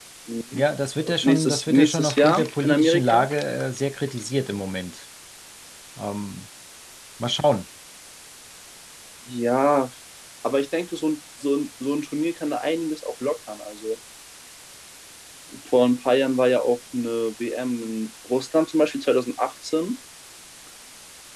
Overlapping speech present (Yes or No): Yes